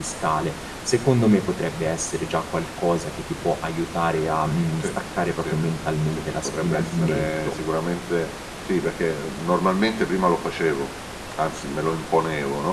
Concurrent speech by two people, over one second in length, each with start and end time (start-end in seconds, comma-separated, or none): 6.2-7.6